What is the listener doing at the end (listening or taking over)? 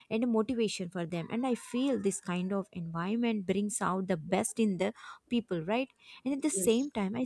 listening